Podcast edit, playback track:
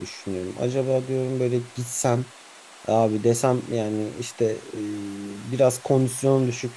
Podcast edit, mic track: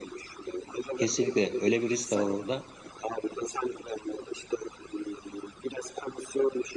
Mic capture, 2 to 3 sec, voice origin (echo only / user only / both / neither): both